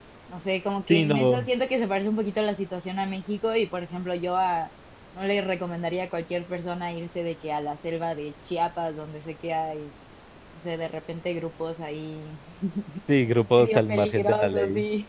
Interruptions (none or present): present